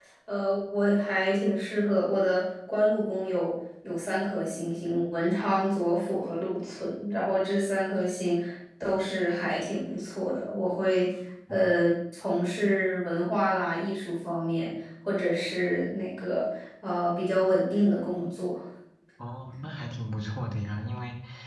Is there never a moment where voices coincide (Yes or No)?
Yes